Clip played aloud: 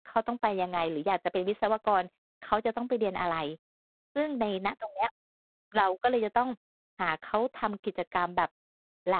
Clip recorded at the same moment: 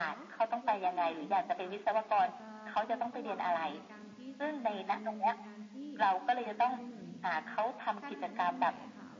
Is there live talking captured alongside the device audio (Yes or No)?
Yes